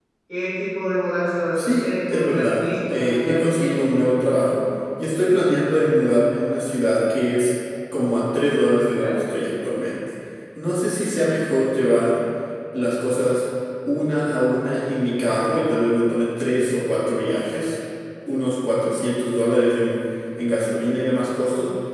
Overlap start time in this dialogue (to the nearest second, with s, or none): 2 s